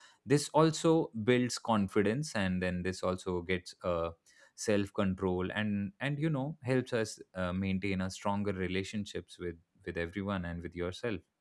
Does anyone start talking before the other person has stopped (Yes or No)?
No